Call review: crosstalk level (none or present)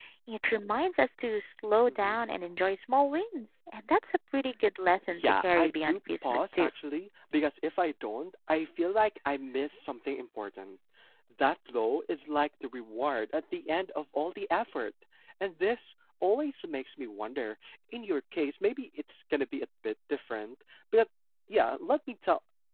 present